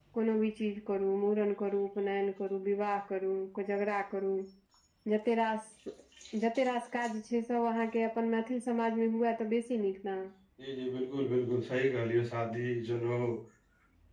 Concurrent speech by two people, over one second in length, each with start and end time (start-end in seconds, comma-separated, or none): none